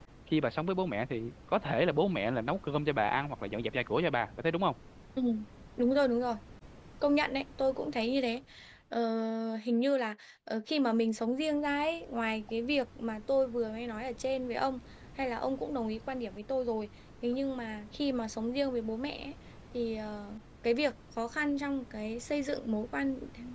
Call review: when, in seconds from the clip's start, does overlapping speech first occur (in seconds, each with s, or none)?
none